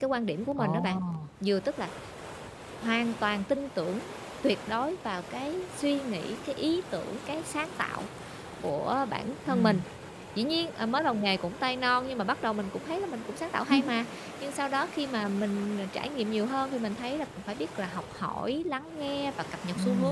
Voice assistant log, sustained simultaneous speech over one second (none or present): none